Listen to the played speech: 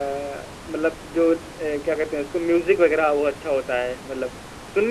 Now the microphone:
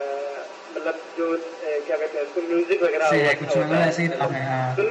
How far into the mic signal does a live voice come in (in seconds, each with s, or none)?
3.0 s